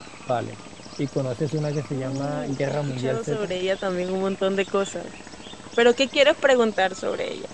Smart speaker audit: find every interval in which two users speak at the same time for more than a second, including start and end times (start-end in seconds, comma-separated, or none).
1.9-3.5